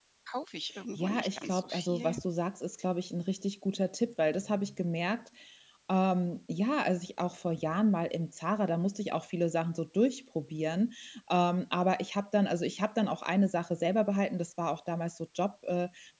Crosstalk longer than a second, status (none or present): present